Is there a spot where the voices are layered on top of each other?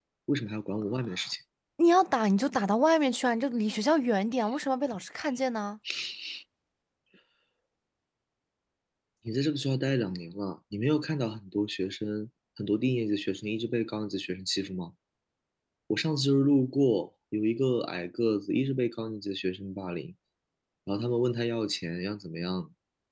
No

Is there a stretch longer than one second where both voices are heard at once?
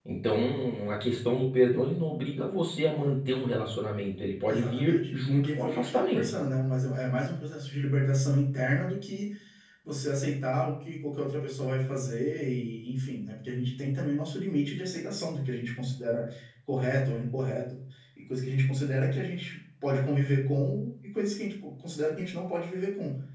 Yes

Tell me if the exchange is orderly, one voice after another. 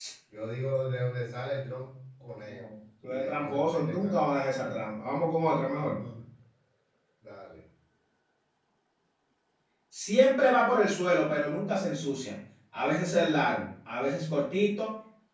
No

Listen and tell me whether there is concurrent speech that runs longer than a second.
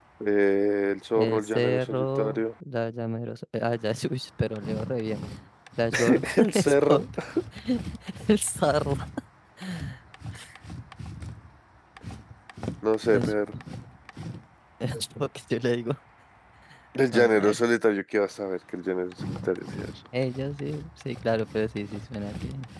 Yes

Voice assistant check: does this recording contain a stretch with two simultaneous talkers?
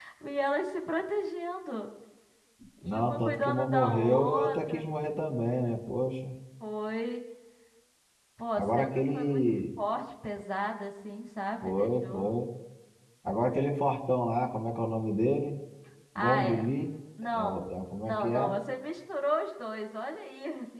Yes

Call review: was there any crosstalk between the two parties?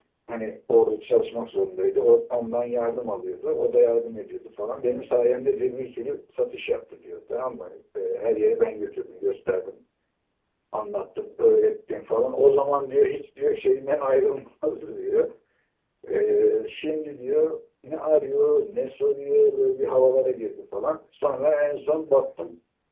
No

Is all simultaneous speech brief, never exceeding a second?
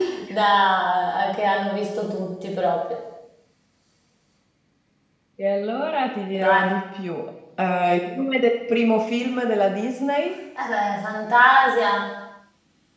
Yes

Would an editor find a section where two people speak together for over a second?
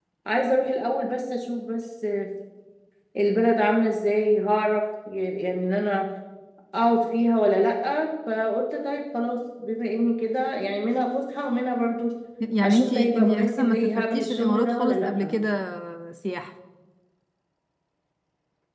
Yes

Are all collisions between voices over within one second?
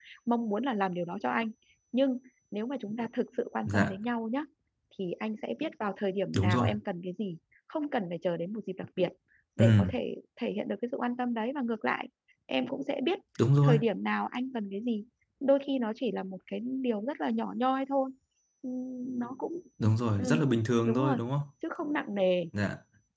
Yes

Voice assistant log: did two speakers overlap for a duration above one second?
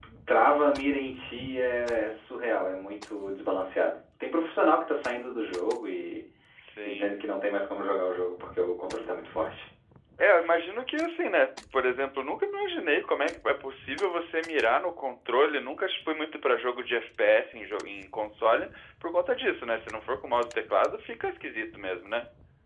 No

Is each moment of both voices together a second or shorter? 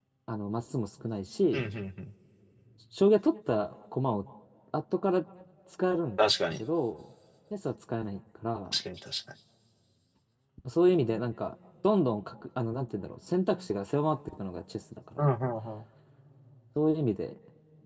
Yes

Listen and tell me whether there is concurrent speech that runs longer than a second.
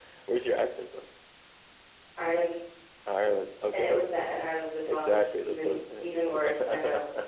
Yes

